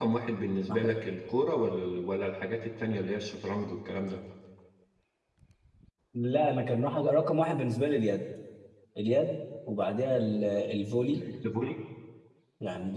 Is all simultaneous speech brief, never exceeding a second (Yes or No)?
Yes